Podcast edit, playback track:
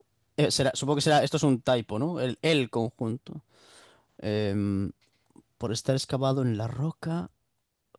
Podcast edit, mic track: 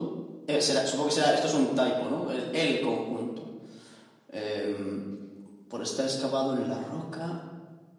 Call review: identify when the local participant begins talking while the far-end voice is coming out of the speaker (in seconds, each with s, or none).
none